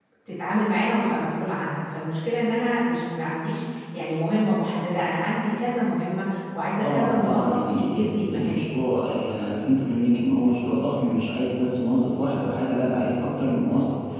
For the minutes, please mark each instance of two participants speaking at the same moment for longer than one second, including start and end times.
6.8-8.7

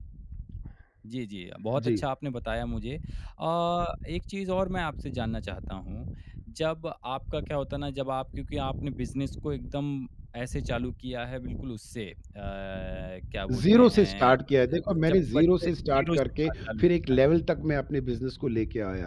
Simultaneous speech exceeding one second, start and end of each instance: 13.5-17.2

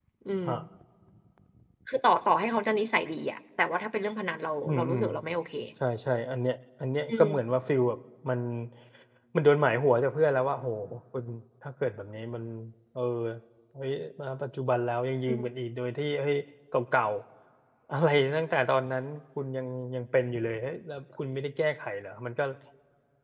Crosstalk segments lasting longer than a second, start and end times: none

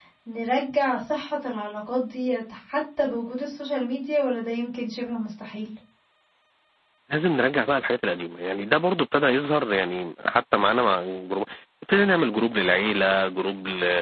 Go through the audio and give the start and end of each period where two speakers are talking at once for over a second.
none

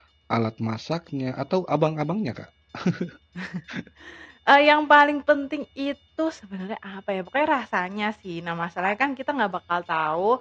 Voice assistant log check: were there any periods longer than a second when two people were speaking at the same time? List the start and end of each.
none

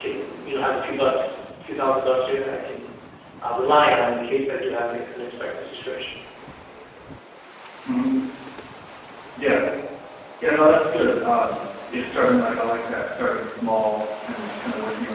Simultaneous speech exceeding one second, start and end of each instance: none

